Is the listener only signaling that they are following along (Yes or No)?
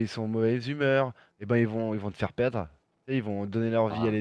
Yes